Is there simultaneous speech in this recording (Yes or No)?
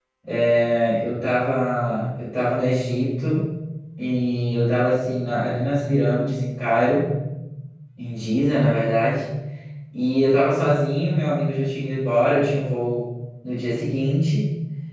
No